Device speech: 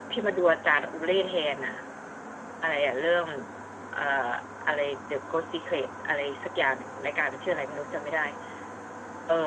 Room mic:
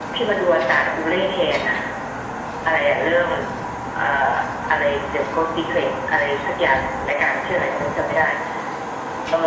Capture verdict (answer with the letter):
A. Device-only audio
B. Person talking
A